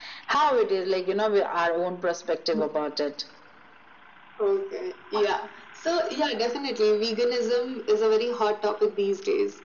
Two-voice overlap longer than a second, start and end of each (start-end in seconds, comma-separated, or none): none